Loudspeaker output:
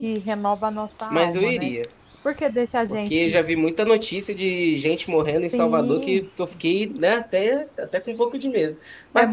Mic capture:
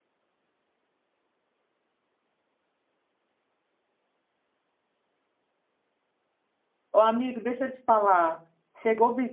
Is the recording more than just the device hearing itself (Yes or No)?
Yes